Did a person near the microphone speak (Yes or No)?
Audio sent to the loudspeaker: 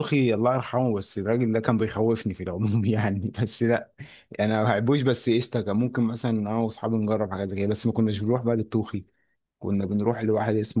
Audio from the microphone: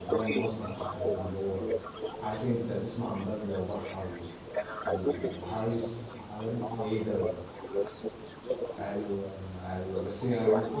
Yes